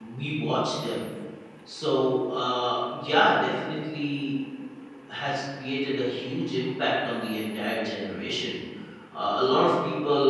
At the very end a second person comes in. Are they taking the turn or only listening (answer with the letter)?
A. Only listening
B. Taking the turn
A